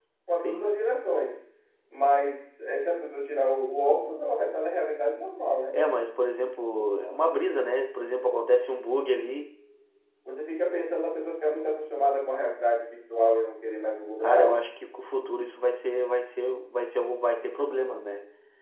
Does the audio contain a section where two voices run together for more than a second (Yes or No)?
No